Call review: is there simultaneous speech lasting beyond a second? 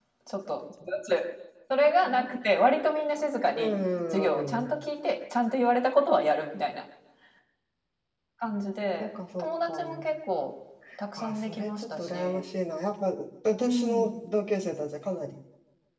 Yes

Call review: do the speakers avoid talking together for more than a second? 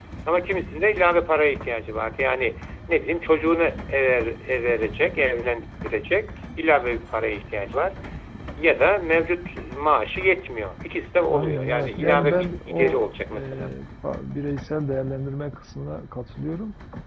No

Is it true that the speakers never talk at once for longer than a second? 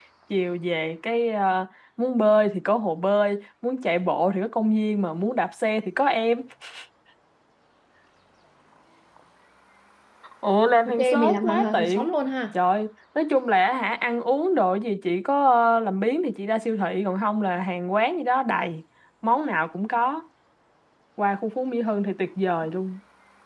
No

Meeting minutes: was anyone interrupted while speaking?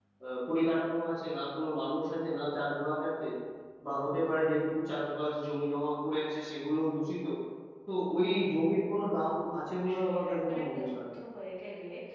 Yes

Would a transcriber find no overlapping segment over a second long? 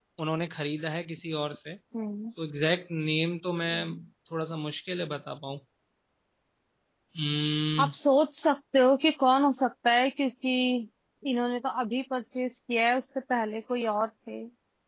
Yes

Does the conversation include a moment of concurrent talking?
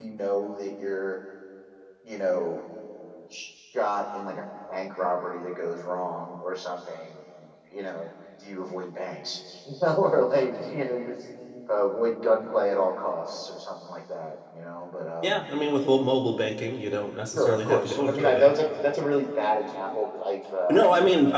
Yes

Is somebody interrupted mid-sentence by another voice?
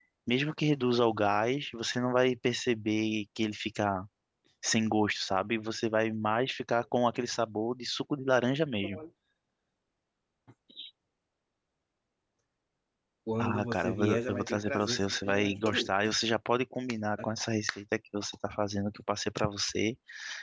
Yes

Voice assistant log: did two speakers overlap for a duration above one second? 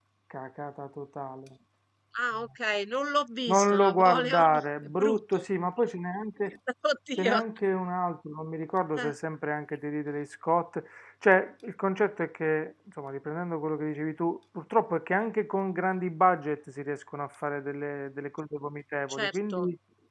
Yes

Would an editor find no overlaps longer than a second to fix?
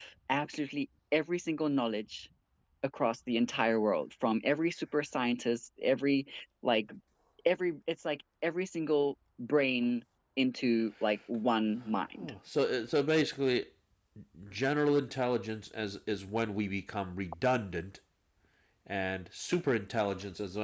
Yes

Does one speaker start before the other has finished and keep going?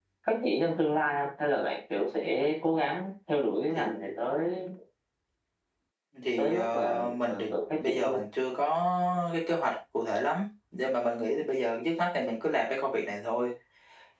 Yes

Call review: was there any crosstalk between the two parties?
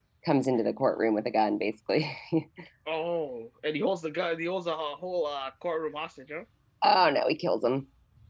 No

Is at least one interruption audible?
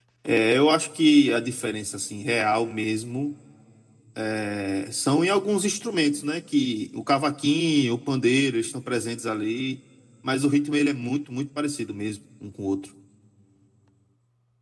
No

